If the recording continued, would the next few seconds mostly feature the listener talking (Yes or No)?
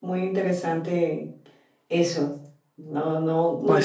No